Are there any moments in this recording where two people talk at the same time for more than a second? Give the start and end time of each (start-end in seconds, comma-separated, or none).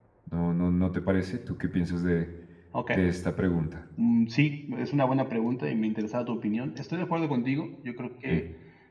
none